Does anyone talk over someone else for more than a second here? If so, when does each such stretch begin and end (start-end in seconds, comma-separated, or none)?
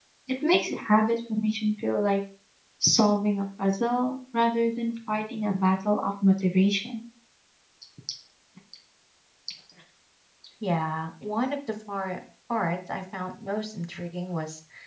none